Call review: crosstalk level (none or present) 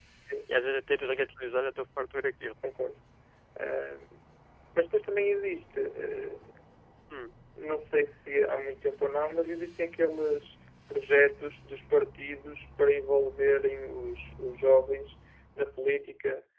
none